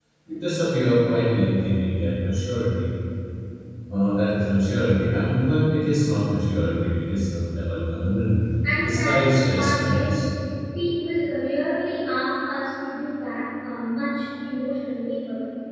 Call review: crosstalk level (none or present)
present